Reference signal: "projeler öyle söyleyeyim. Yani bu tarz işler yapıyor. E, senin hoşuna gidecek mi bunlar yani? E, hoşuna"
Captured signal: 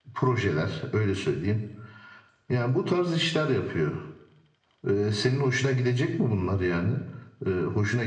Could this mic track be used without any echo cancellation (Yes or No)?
No